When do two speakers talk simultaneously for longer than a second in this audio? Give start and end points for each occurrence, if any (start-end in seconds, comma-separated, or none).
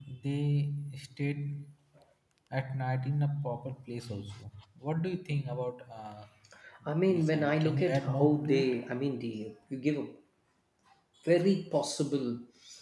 7.1-8.8